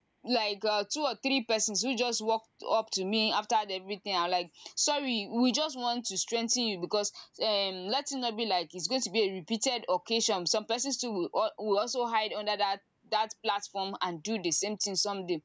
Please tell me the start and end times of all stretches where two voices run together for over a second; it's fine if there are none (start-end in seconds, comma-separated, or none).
none